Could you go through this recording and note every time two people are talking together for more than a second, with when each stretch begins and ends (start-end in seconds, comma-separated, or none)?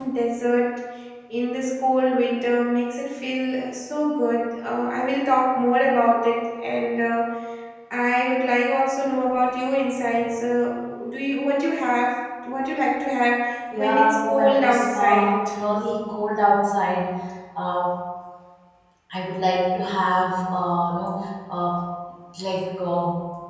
13.8-15.3